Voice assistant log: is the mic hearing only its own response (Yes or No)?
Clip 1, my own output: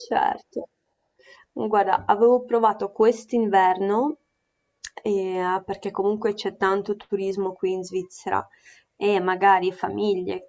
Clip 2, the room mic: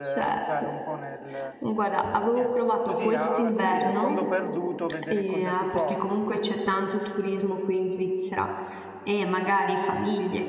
No